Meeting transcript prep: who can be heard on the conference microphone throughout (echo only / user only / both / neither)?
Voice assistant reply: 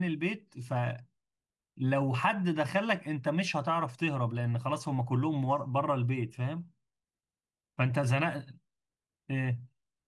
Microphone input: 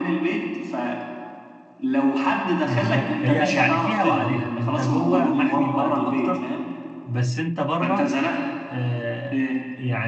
both